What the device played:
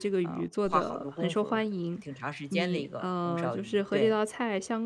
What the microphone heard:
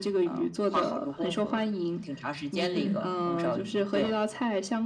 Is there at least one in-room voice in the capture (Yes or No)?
Yes